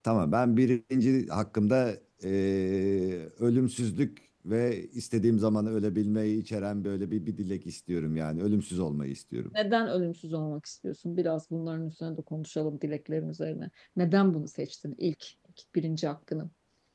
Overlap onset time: none

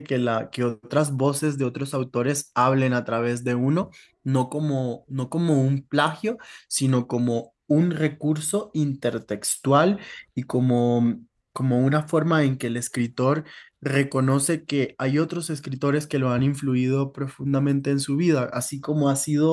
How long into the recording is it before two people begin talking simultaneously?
none

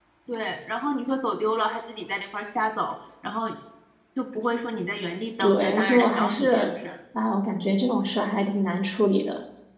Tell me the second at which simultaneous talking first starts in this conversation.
5 s

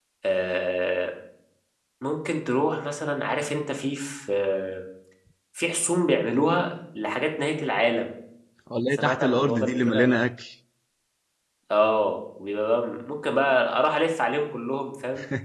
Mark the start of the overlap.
9 s

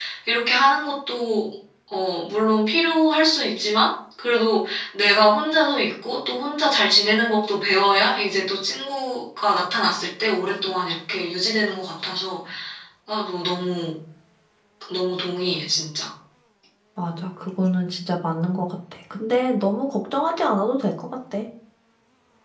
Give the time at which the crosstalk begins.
none

